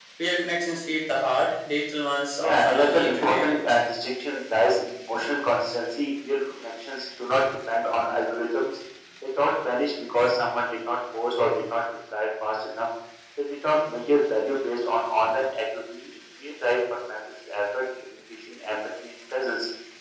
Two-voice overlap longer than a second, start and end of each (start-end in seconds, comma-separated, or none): 2.4-3.8